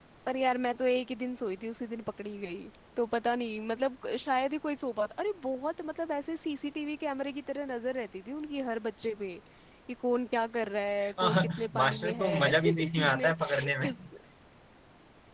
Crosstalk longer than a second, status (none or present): present